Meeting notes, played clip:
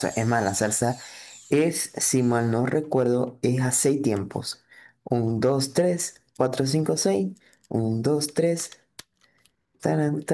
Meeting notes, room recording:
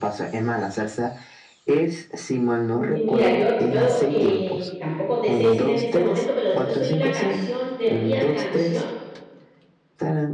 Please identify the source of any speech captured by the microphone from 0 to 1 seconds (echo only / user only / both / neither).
echo only